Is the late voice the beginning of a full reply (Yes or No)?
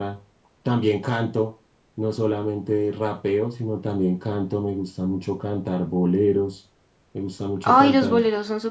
Yes